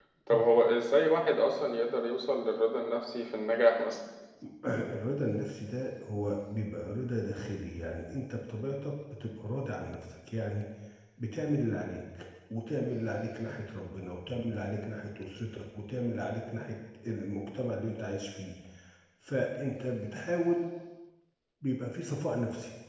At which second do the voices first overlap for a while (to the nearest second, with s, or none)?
none